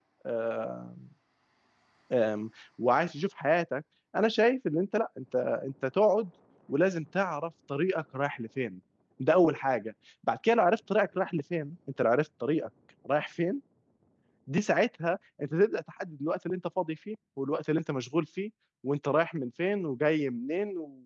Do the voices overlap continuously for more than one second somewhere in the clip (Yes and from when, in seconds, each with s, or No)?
No